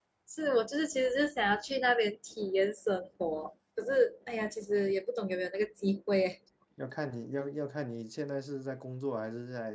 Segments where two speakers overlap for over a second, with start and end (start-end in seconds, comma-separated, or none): none